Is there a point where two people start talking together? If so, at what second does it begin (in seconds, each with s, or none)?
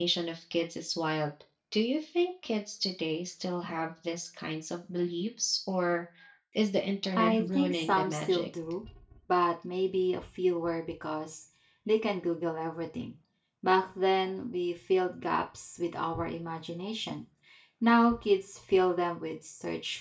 7.1 s